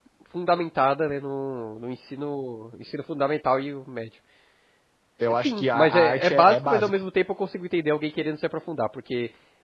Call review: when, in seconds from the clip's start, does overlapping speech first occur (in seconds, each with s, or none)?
5.3 s